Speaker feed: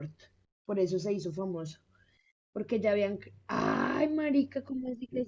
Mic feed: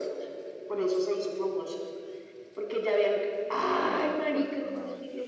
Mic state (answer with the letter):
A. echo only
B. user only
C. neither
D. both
D